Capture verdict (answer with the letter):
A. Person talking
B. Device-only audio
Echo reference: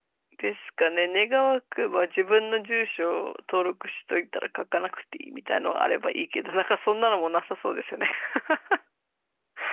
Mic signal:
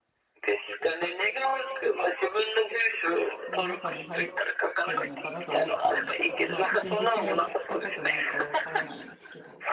A